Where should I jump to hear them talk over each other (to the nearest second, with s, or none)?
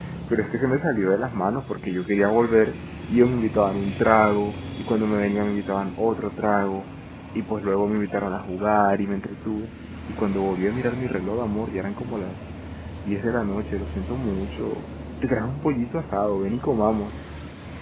none